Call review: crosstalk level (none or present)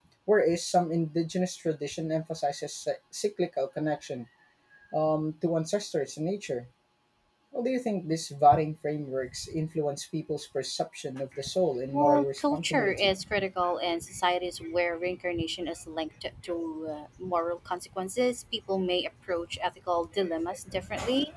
present